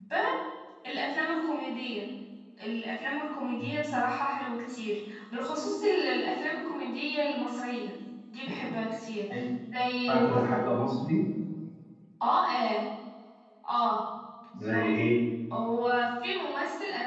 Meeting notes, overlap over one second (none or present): none